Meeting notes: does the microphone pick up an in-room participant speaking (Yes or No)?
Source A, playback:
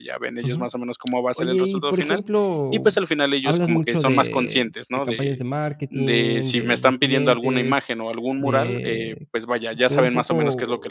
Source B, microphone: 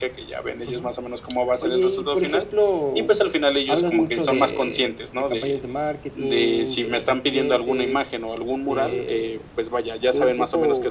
No